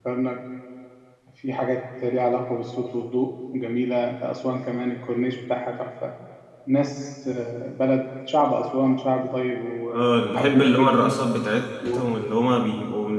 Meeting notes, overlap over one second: present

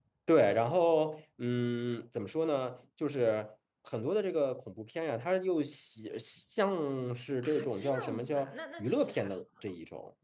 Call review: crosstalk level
present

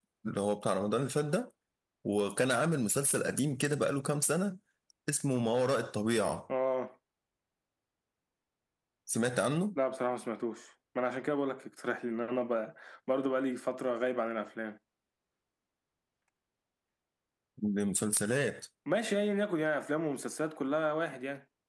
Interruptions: none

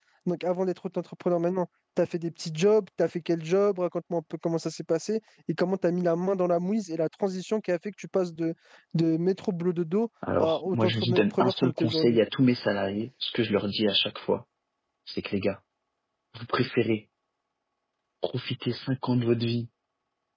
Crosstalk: present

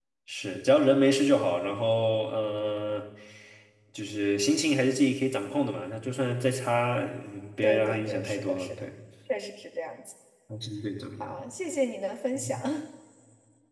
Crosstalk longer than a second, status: present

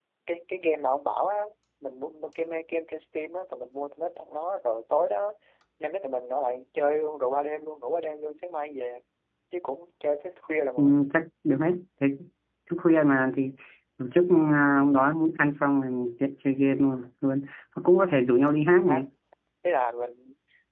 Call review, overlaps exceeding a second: none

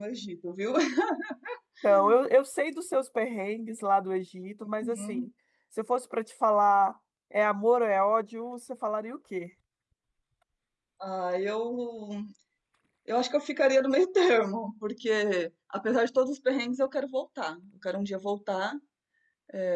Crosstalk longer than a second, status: none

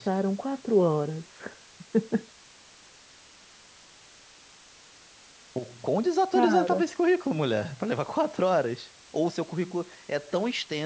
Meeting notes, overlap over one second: none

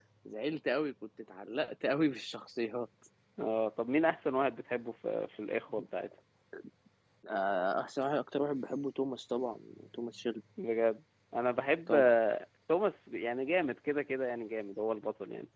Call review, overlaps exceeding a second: none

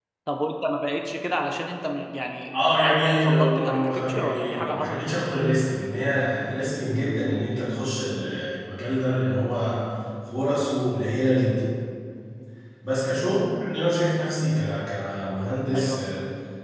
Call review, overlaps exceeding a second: present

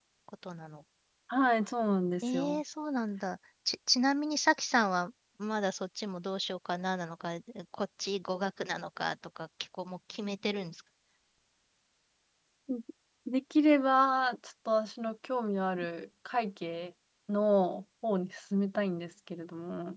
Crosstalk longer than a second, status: none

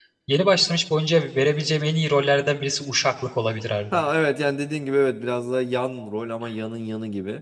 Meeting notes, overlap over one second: none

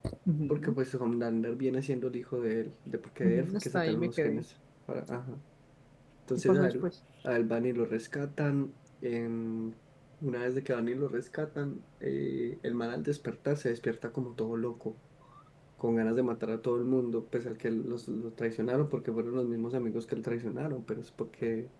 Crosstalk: present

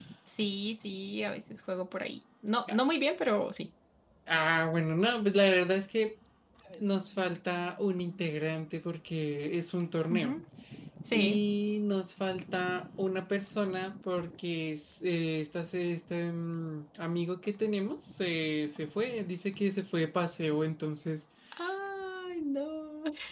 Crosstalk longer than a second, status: none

